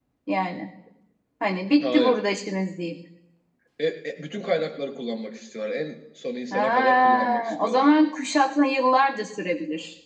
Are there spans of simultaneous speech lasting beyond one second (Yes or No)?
Yes